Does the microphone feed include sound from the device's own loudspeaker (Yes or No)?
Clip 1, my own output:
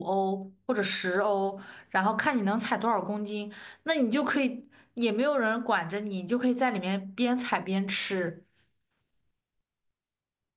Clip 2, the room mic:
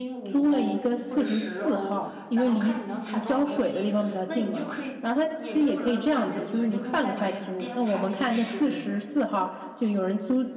Yes